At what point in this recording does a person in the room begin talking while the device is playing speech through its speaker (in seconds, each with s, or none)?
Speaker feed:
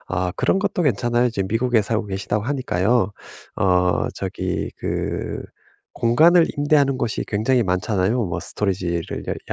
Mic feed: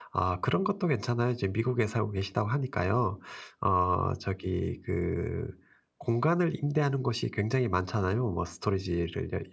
none